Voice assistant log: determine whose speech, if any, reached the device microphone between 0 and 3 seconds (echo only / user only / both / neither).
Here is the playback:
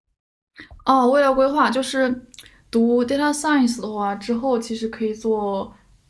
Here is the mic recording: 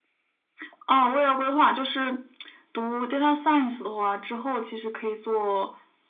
echo only